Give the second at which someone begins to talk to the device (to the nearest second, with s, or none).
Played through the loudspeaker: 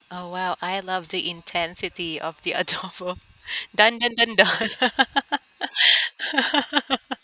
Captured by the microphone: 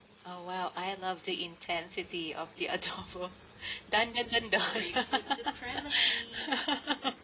5 s